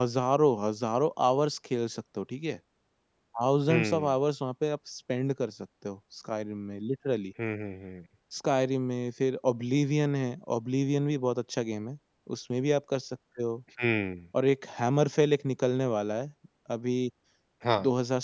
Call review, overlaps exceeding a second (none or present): none